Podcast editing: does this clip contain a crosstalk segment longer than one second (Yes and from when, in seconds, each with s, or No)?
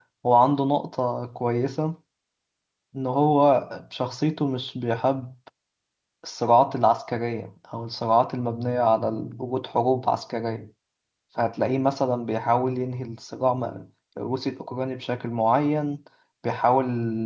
No